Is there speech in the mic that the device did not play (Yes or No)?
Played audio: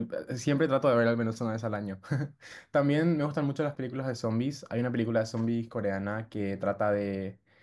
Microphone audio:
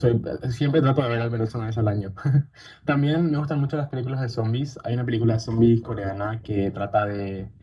No